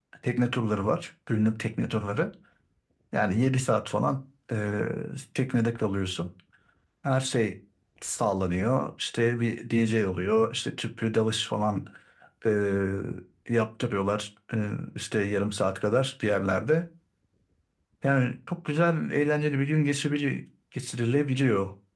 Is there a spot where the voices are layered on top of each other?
No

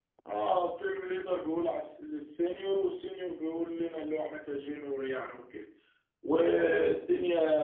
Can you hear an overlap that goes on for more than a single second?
No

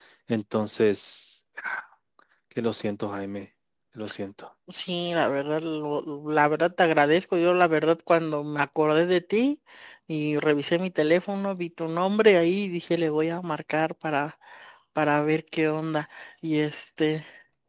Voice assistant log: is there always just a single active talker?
Yes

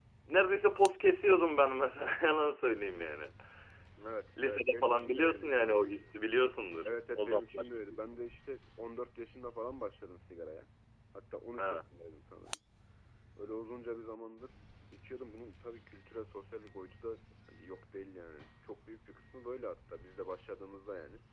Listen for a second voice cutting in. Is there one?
Yes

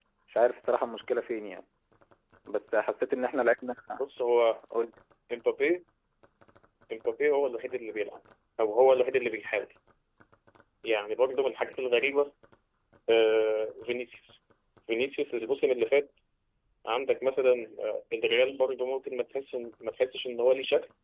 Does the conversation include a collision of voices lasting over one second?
No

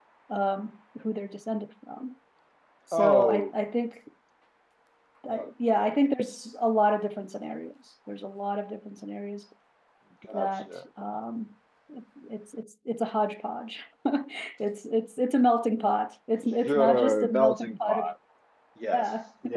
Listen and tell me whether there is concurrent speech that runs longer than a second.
Yes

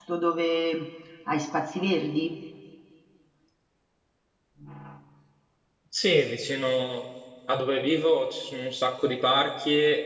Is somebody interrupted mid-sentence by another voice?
No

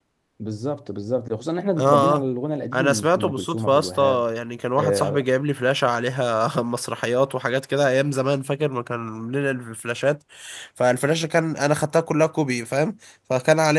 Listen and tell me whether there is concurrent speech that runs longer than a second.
Yes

